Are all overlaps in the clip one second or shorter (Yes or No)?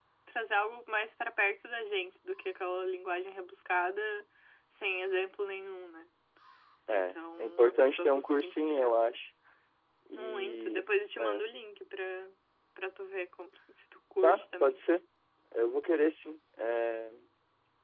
No